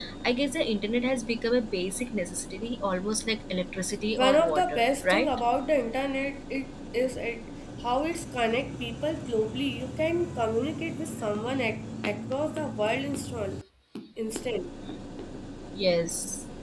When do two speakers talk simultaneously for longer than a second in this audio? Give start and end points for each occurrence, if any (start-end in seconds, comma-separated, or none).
4.1-5.4